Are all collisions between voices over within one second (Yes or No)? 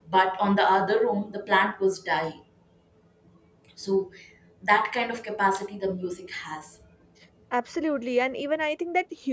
Yes